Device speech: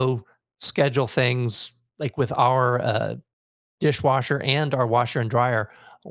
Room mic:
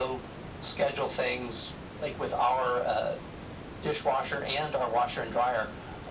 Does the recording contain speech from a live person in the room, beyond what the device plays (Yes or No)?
No